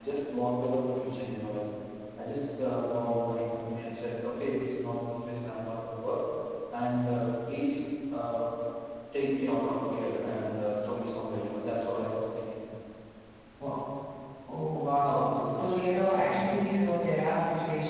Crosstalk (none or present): present